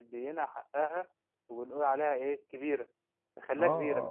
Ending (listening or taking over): taking over